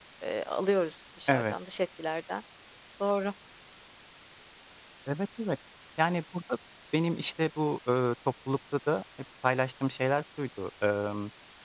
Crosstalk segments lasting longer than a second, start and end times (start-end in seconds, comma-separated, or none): none